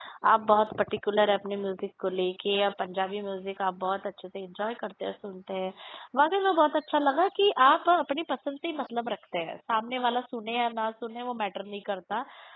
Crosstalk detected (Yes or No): No